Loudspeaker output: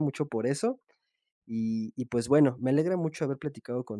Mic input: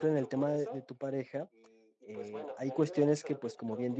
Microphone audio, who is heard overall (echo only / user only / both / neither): both